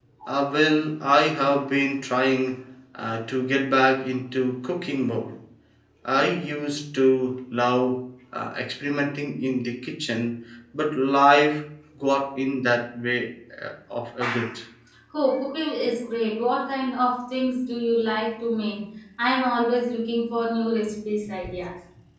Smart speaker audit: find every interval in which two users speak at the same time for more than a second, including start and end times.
none

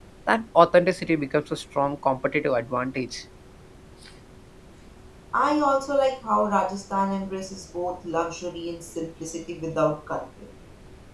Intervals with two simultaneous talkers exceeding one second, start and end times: none

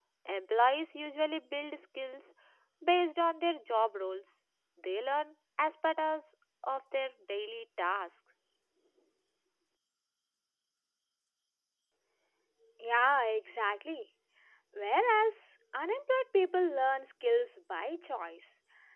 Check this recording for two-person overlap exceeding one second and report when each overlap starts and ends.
none

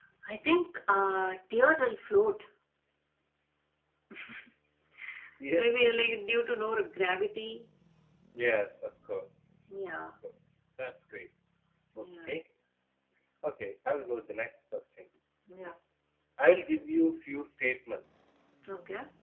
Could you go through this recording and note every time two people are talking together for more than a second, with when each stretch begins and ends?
none

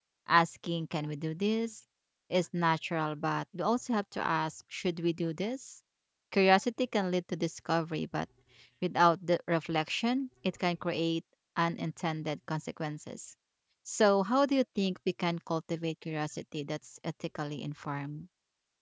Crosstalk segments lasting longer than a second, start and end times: none

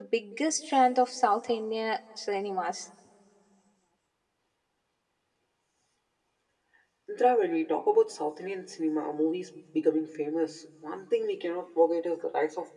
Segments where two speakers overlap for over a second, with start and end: none

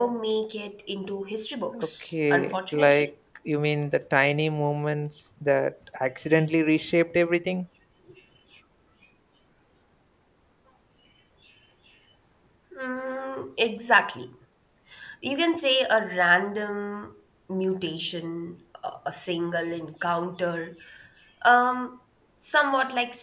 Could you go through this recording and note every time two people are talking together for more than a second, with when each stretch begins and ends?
1.8-3.1

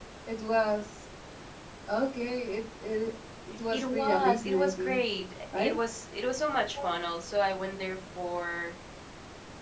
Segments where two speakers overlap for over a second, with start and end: 3.7-5.0

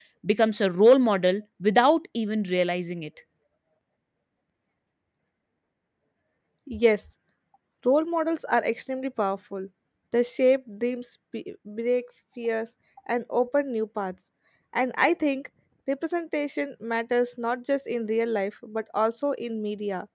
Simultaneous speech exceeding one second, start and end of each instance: none

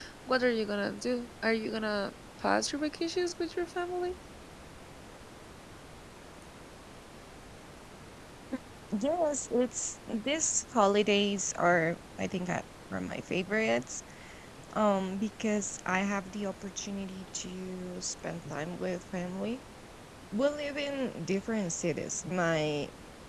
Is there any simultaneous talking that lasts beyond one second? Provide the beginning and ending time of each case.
none

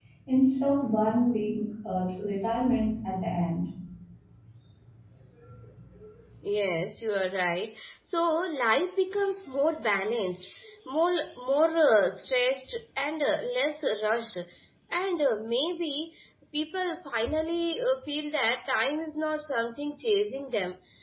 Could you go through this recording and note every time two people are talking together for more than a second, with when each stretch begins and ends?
none

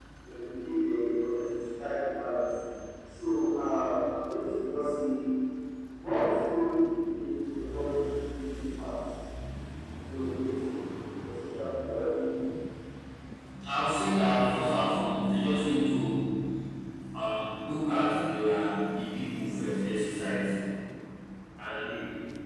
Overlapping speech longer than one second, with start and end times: none

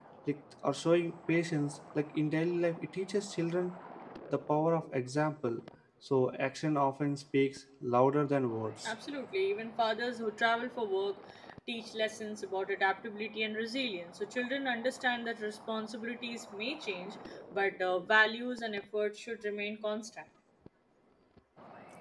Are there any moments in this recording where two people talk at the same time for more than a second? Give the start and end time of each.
none

